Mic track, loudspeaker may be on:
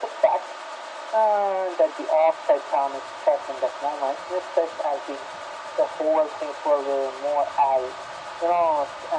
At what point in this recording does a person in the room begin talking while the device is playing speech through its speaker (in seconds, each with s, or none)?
none